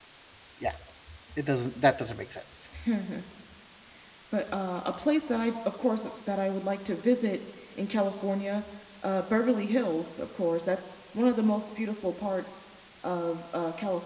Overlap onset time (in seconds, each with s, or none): none